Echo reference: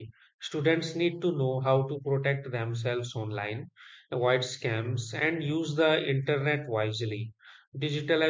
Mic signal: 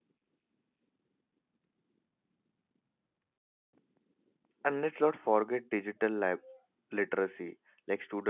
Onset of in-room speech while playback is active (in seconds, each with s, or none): 4.6 s